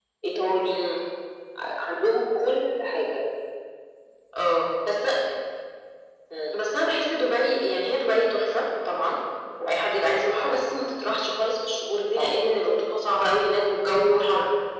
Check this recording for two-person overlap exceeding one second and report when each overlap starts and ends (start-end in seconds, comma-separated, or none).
none